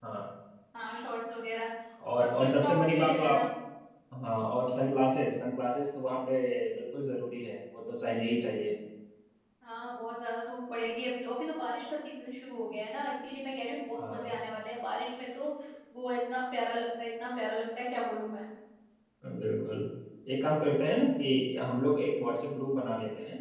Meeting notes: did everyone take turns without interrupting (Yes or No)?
No